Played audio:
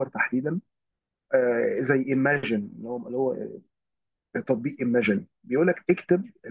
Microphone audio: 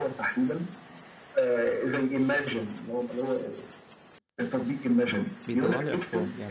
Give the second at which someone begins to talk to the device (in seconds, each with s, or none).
5.5 s